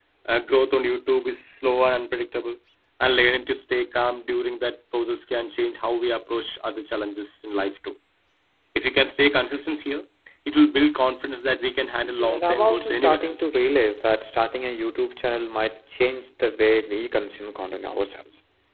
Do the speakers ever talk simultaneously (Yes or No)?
Yes